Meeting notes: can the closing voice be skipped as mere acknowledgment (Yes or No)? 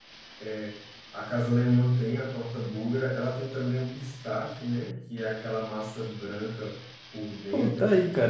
No